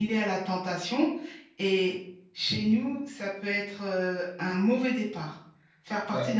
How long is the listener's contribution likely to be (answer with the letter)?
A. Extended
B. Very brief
B